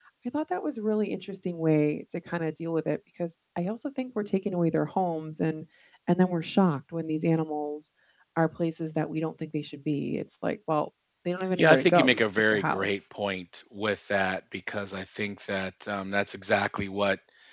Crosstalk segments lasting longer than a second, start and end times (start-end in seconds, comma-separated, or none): 11.6-13.0